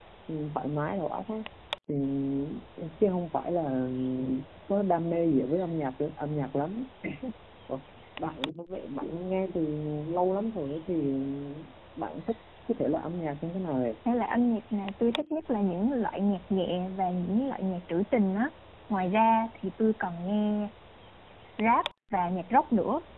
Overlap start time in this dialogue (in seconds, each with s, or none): none